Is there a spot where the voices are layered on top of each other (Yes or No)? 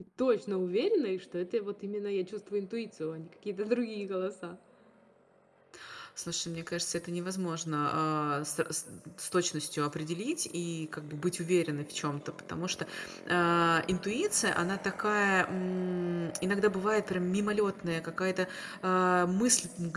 No